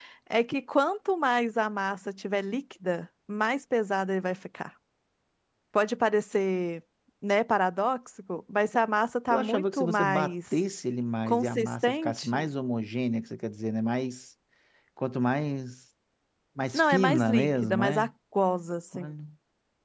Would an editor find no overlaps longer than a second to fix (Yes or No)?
No